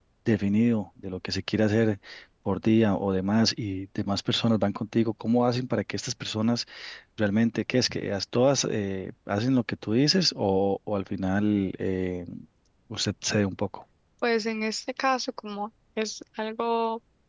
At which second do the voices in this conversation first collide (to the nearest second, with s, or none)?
none